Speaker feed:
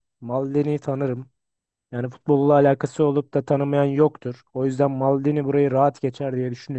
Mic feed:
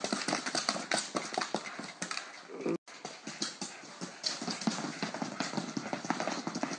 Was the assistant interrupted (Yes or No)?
No